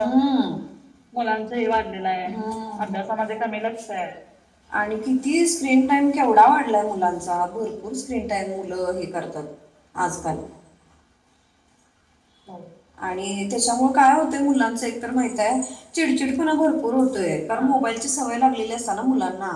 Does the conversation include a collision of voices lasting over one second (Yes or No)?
No